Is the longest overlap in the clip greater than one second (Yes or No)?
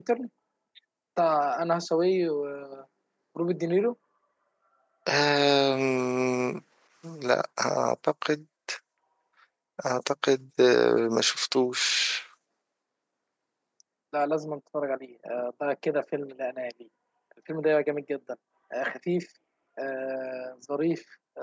No